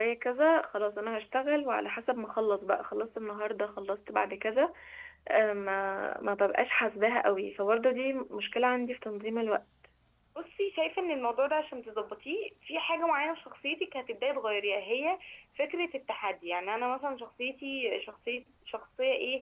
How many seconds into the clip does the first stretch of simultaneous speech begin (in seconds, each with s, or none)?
none